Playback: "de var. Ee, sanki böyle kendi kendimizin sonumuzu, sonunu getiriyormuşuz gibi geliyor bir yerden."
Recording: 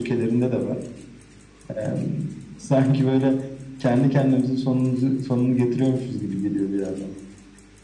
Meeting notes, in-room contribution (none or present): none